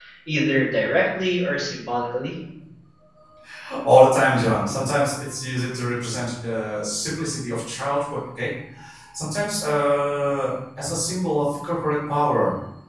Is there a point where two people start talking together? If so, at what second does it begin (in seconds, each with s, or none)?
none